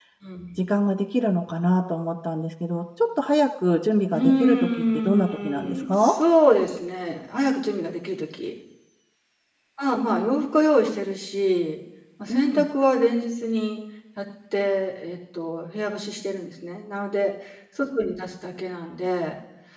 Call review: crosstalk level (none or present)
present